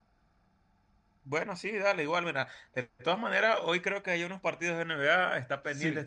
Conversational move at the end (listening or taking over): listening